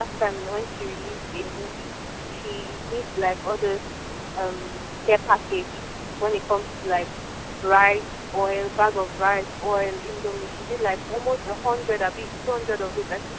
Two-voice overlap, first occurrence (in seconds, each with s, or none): none